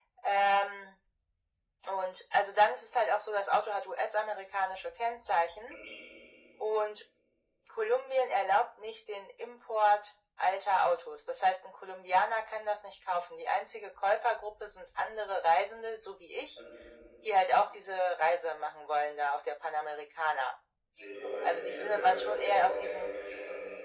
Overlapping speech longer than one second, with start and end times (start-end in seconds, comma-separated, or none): 21.4-23.1